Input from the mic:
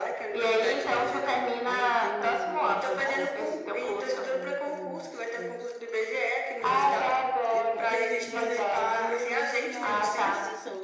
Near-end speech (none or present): present